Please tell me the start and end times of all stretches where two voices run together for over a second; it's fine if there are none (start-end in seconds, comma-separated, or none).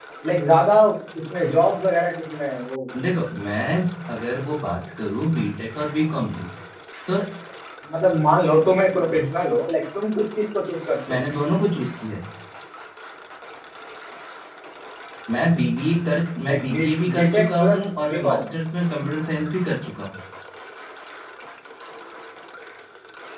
16.4-18.4